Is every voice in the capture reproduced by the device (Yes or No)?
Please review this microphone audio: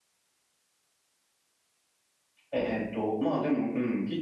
No